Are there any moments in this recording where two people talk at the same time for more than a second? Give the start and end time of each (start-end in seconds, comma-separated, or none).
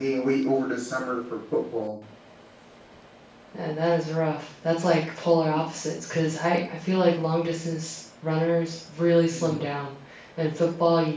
none